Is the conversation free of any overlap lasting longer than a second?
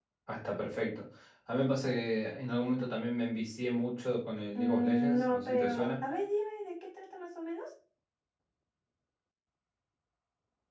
No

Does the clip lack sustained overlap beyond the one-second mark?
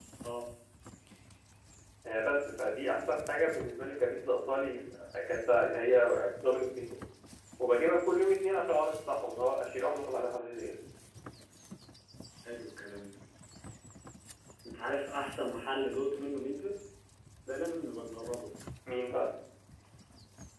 Yes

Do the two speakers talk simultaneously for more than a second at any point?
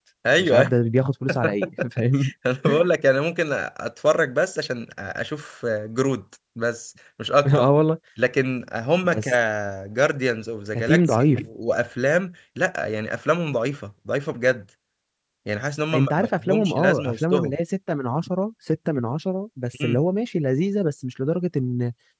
Yes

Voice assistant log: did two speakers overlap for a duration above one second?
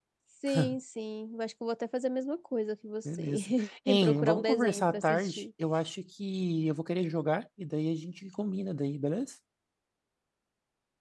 Yes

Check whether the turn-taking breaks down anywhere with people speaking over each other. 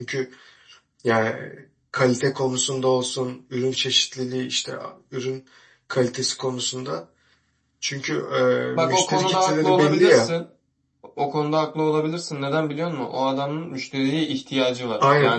Yes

